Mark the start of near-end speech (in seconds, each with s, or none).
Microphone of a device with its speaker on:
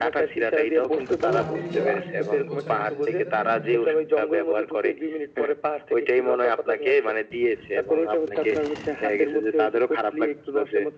1.2 s